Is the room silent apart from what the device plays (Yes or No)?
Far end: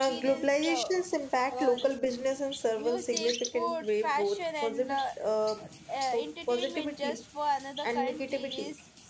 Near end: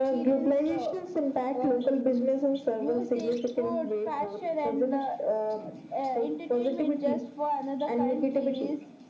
Yes